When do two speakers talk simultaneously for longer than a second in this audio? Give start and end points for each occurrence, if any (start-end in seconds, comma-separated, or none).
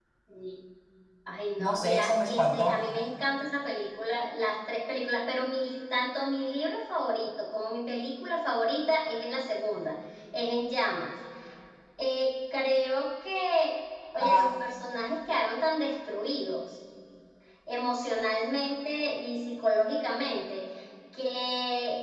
1.6-2.8